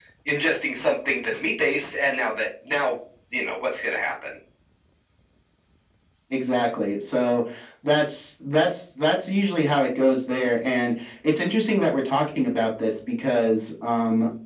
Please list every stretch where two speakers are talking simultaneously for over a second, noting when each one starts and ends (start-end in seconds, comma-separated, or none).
none